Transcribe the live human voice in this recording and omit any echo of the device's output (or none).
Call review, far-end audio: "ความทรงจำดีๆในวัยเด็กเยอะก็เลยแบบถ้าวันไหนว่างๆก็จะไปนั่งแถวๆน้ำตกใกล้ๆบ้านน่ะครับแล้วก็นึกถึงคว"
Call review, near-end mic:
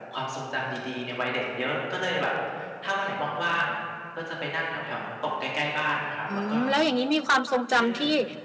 อืมแล้วอย่างงี้มีความทรงจำที่